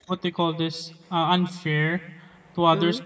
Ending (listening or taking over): listening